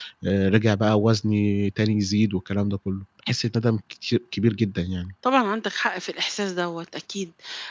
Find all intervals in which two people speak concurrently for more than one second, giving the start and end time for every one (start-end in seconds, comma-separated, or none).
none